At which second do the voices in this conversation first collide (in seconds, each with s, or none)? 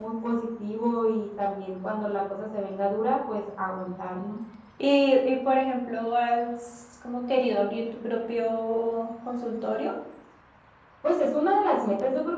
none